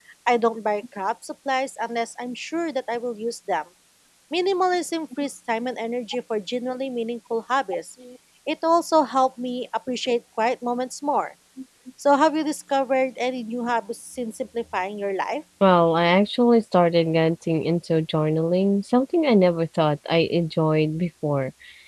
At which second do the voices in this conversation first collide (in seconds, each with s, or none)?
none